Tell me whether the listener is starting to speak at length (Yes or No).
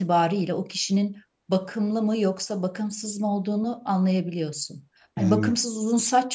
No